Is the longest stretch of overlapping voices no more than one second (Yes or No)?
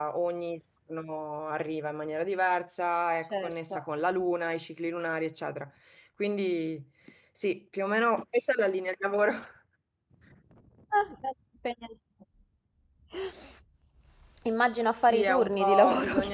No